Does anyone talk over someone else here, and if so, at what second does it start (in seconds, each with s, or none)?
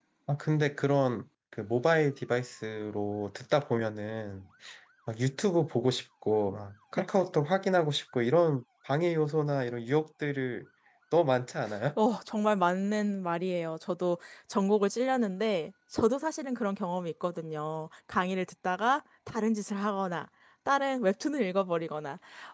none